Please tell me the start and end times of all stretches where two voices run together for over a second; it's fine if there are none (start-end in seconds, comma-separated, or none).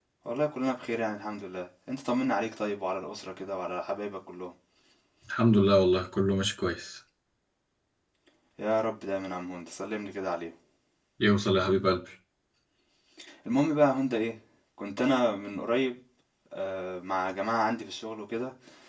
none